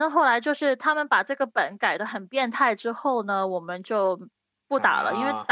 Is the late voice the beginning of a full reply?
No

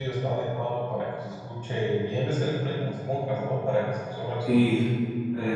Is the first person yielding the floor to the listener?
Yes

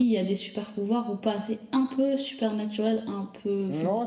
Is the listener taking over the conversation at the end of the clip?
Yes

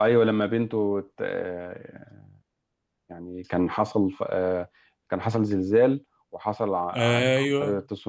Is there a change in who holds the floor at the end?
No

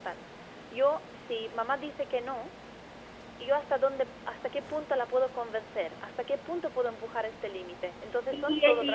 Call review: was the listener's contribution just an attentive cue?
No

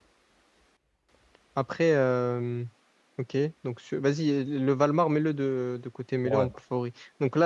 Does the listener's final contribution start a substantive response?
No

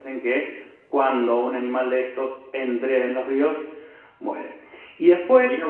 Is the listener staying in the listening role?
Yes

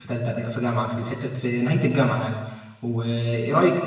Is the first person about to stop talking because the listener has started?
No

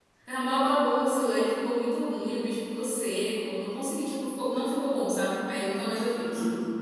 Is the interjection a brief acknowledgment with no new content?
No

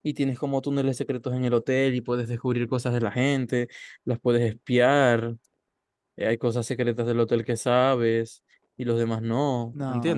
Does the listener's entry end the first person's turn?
Yes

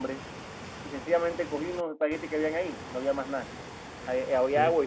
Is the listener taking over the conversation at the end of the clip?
No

